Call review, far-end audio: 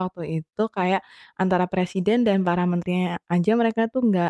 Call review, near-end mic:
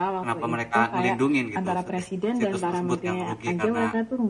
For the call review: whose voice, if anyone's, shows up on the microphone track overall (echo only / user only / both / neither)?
both